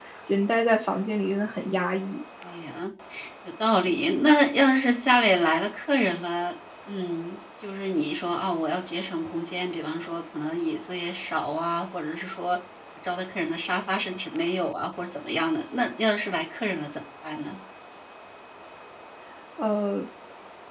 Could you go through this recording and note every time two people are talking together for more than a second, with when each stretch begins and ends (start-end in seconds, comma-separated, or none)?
none